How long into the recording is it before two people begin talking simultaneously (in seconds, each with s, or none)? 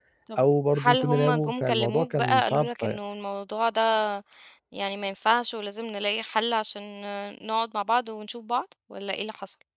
0.8 s